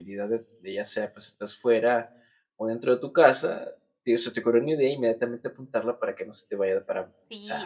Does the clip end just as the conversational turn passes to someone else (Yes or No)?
Yes